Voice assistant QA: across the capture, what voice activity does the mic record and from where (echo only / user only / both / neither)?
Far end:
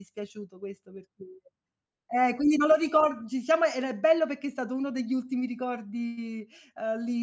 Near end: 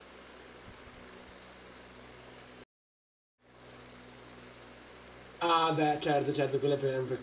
user only